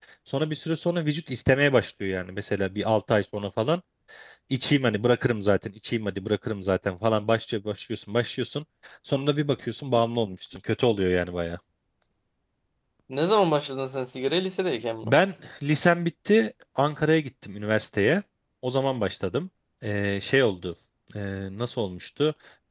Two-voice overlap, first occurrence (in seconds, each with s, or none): none